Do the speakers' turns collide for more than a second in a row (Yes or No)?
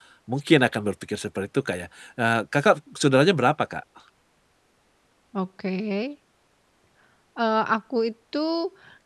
No